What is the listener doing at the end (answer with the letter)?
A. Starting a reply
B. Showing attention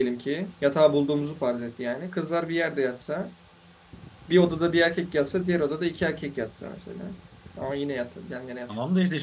A